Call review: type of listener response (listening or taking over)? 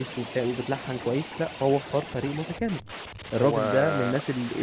listening